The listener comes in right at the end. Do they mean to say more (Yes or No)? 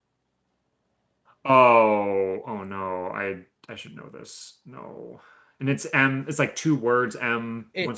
Yes